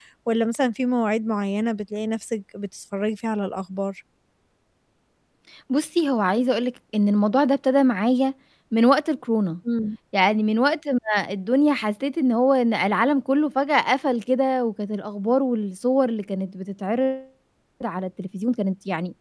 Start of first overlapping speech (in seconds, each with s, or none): none